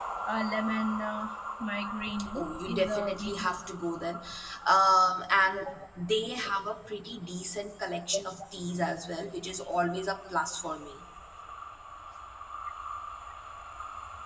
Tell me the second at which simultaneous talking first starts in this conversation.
2.4 s

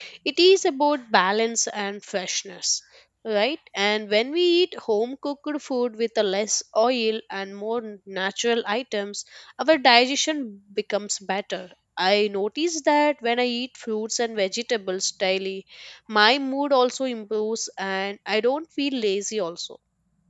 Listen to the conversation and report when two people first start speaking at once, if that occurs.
none

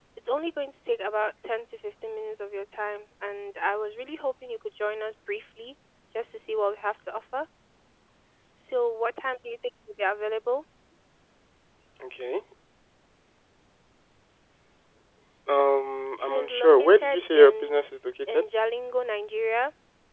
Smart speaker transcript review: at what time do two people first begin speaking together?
16.2 s

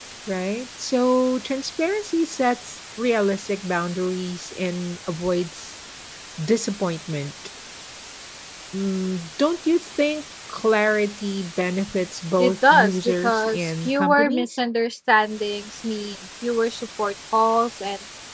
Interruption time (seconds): 12.4 s

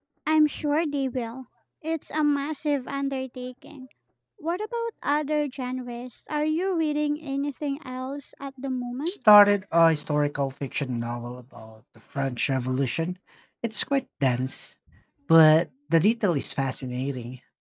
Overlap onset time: none

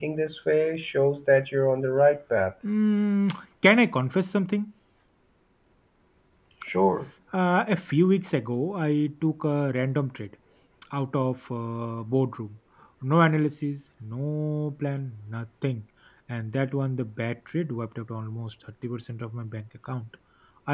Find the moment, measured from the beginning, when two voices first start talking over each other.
none

